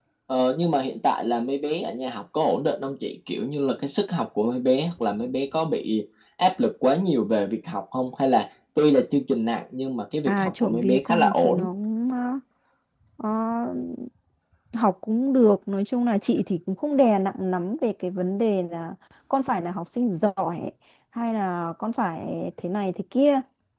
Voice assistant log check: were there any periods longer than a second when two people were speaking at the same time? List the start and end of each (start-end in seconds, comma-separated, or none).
10.2-11.7